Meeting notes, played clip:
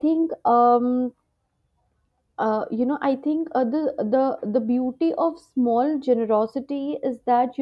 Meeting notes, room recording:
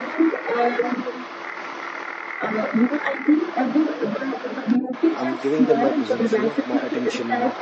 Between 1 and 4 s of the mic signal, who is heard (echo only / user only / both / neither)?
echo only